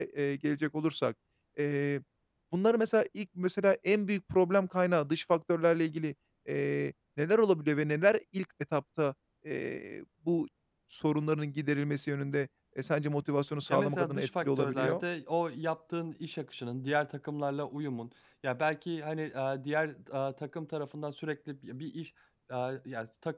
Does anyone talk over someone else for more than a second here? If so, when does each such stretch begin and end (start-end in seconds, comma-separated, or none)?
13.7-15.0